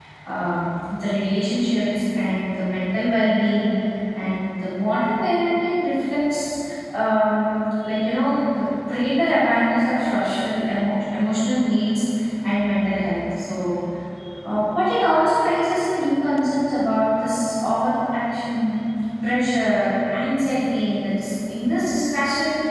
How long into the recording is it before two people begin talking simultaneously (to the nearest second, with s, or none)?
none